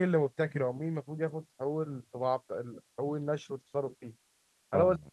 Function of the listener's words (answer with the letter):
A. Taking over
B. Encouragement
B